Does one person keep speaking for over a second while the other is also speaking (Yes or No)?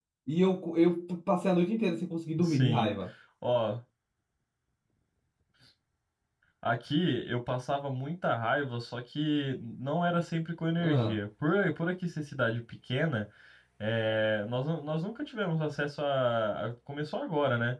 No